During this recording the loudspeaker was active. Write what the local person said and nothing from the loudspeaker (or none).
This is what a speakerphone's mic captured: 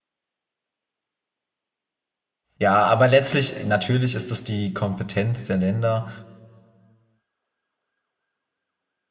ja, aber letztlich, natürlich ist das die Kompetenz der Länder,